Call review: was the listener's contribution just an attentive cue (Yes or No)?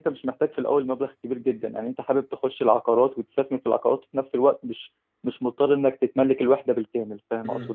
No